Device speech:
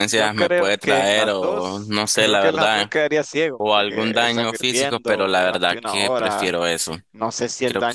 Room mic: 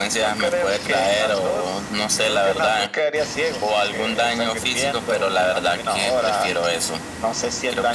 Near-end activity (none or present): none